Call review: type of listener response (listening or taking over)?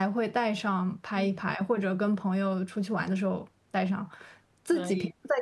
listening